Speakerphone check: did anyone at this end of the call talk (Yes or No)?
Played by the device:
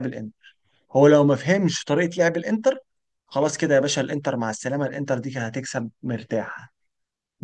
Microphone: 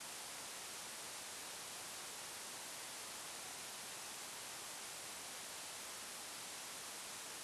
No